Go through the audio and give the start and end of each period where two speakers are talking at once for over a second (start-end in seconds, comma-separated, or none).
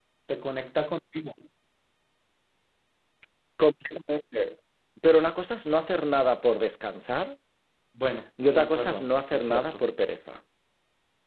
8.5-9.8